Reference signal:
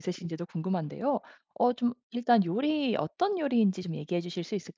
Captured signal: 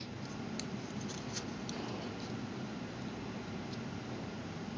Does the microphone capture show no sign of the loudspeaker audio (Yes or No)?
Yes